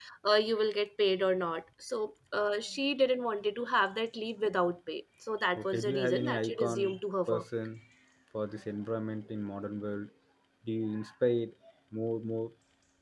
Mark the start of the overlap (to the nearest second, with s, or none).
6 s